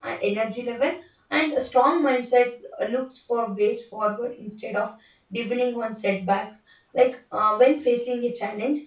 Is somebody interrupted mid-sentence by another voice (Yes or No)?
No